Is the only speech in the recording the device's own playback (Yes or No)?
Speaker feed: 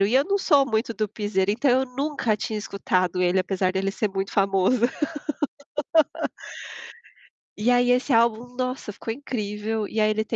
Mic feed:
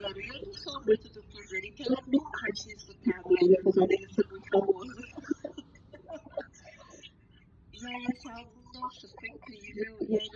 Yes